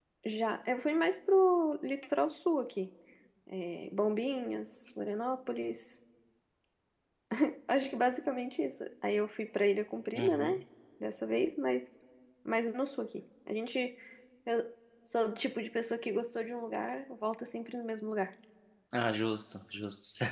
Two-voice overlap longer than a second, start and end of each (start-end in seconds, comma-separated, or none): none